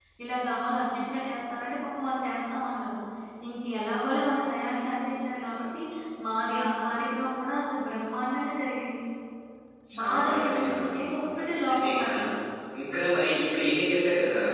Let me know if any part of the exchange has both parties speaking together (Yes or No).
Yes